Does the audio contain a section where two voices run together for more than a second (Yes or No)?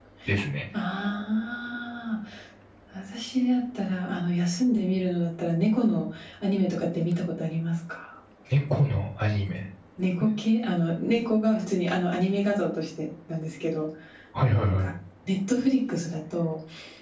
No